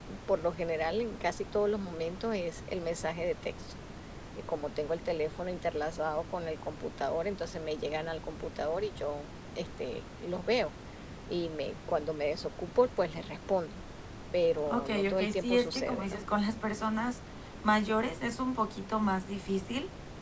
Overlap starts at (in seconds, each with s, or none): 14.7 s